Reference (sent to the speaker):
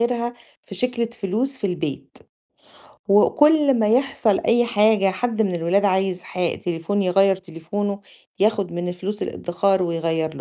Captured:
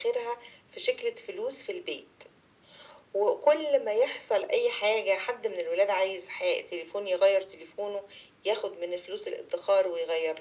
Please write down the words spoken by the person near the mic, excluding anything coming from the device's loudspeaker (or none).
none